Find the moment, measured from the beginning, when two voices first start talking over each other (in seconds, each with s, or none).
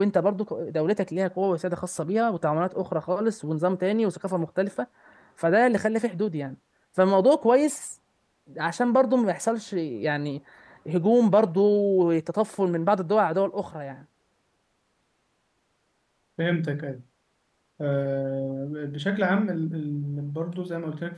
none